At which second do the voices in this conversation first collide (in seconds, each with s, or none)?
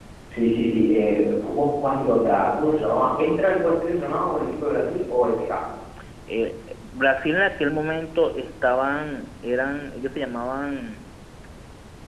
none